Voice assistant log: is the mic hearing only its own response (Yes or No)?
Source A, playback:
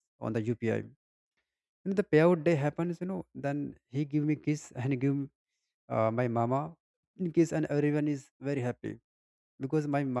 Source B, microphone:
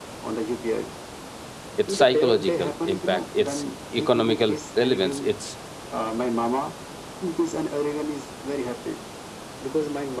No